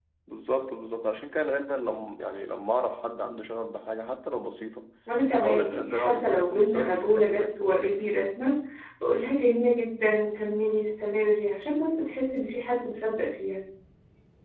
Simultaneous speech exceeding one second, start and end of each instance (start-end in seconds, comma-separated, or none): 5.3-8.1